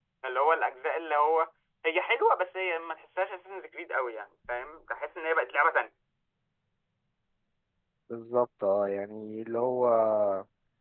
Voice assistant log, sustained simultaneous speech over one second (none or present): none